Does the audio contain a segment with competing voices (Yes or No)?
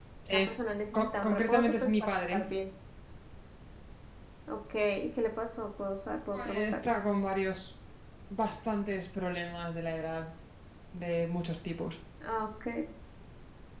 Yes